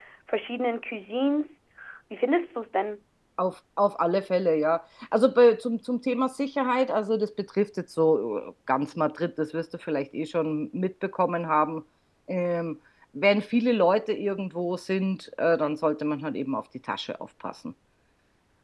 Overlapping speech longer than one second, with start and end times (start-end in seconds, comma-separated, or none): none